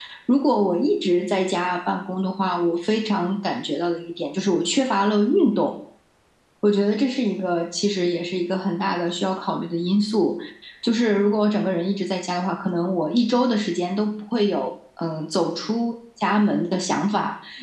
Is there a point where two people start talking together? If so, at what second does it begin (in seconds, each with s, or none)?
none